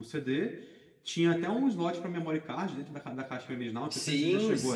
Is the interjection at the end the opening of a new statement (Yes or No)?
Yes